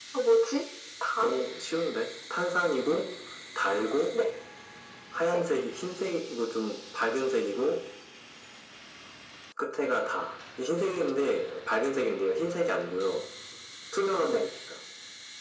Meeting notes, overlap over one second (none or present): none